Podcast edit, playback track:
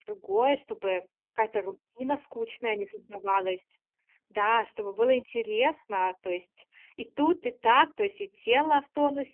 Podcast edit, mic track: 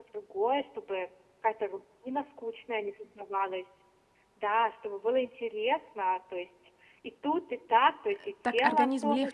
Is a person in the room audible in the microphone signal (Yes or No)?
Yes